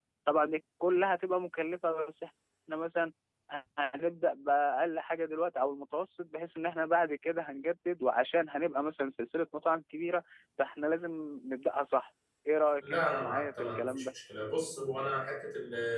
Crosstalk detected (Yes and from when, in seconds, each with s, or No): Yes, from 12.8 s